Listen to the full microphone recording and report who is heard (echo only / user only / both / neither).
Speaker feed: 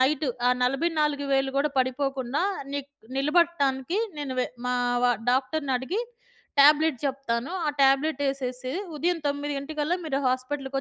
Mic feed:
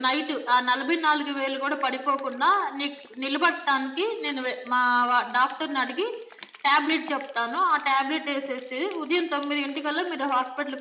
echo only